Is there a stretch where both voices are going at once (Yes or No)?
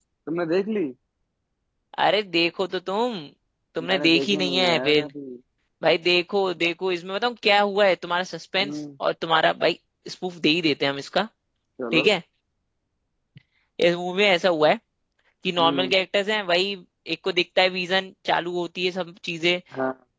Yes